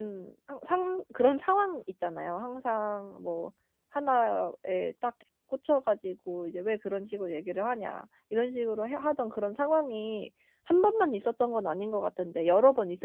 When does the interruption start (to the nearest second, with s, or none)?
none